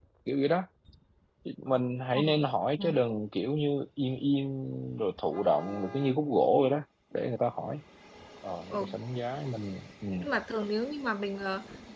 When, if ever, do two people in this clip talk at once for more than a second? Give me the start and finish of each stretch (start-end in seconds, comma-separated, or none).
none